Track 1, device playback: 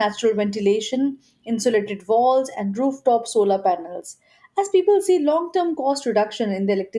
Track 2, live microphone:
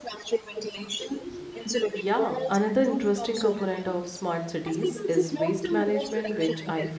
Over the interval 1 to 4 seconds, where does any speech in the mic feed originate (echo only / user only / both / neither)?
both